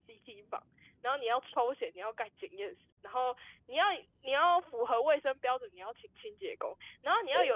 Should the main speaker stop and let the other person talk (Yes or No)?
No